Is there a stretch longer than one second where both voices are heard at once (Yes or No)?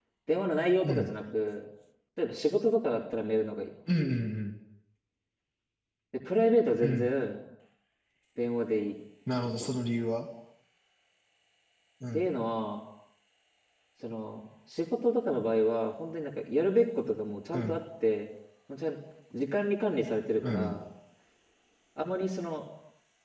No